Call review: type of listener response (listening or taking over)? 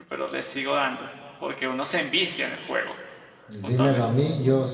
taking over